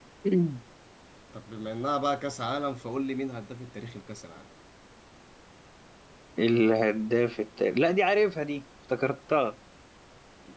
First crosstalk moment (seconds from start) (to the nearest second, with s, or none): none